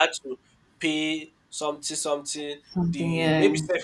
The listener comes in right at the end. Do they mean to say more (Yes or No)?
No